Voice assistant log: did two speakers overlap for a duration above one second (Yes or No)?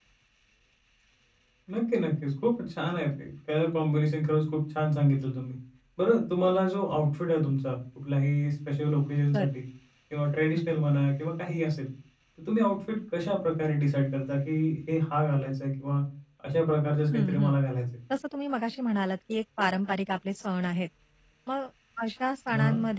No